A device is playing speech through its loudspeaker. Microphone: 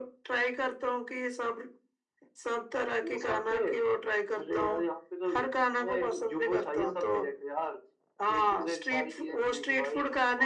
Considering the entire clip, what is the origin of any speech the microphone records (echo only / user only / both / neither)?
echo only